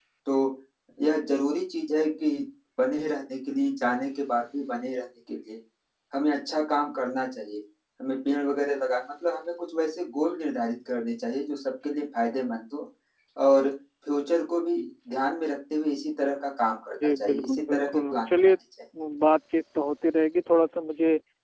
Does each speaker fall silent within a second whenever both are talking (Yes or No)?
No